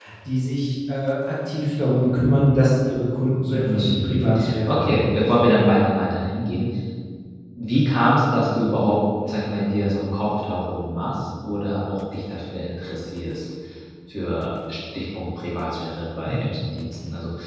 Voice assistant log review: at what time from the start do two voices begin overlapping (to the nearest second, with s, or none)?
4 s